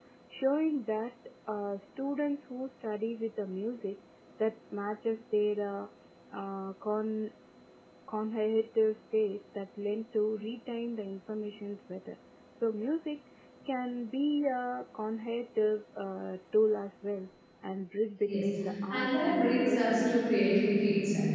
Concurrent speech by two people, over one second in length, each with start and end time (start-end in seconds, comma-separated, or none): 18.9-20.2